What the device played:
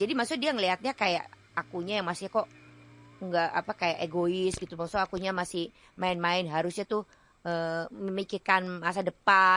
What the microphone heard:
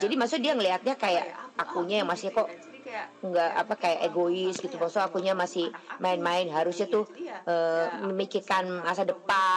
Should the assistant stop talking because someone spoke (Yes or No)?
Yes